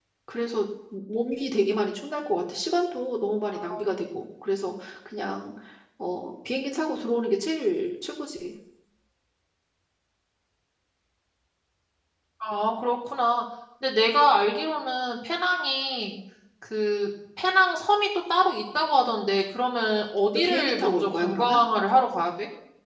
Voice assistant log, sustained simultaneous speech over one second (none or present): present